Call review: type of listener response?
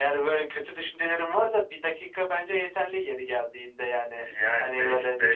taking over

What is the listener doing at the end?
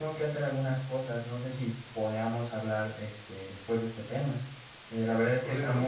listening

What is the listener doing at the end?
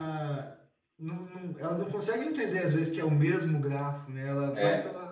listening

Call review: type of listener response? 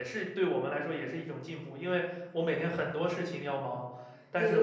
listening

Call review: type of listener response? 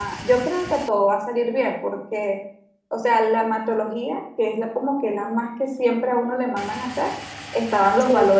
listening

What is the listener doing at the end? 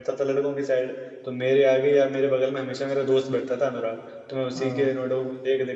listening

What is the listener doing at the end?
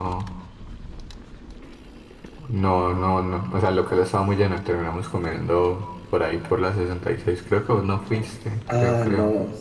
taking over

